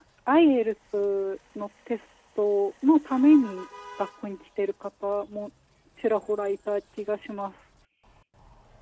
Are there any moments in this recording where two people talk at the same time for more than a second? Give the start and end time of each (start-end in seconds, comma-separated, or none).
none